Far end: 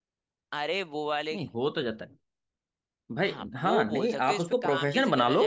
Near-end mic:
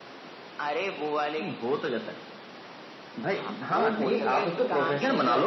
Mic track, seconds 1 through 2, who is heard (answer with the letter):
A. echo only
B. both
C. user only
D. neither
A